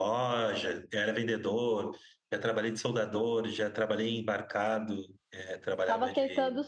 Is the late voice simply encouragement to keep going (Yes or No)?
No